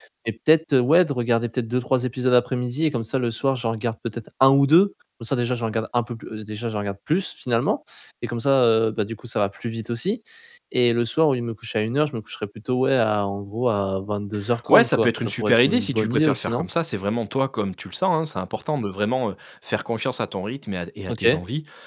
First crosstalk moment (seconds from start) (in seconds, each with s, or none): 14.7 s